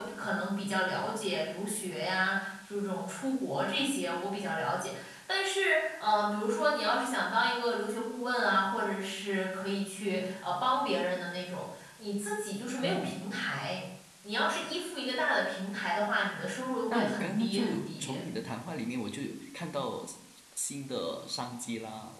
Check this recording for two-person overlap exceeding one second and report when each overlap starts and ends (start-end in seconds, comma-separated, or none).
16.9-18.2